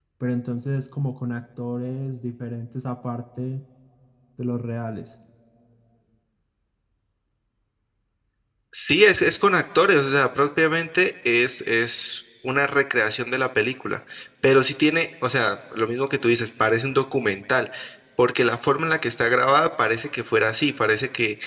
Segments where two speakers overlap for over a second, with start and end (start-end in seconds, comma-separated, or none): none